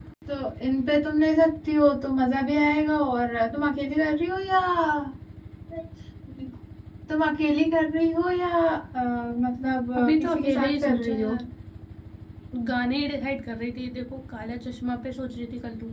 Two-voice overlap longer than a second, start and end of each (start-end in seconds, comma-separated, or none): 10.0-11.3